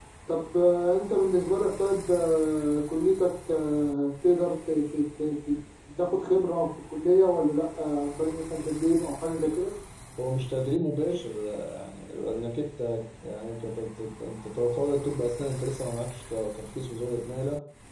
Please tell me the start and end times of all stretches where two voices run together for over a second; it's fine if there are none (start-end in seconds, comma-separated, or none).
none